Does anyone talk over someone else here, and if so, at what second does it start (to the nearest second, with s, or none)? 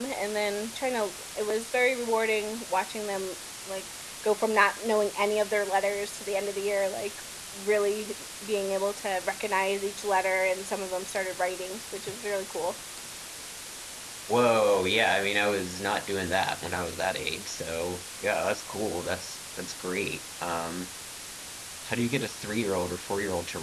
none